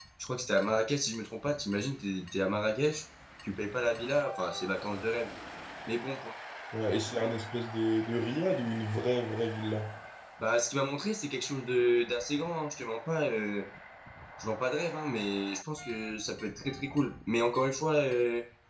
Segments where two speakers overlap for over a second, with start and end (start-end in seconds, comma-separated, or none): none